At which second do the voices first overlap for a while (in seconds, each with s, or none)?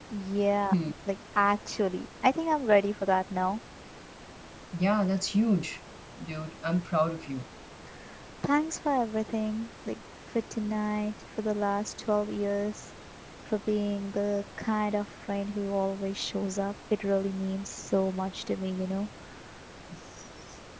none